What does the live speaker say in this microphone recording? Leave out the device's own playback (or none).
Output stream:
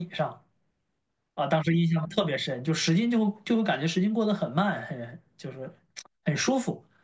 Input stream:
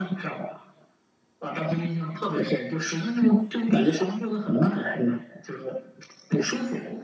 none